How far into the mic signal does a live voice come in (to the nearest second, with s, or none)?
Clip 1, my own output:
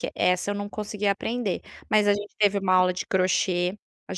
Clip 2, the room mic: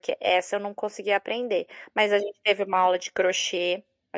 none